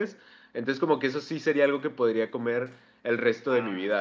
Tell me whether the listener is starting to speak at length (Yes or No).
Yes